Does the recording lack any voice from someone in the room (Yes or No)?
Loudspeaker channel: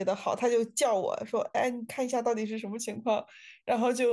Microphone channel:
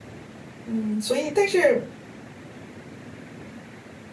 No